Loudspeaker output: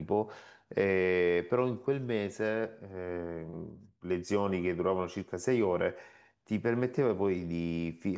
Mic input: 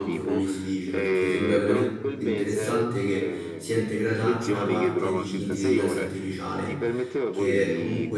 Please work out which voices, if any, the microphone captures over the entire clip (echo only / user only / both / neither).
both